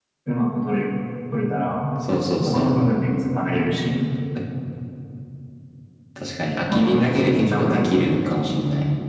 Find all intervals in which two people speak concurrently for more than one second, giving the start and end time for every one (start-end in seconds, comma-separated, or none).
6.7-8.1